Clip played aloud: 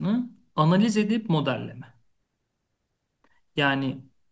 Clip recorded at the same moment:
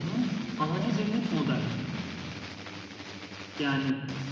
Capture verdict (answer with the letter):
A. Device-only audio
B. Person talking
A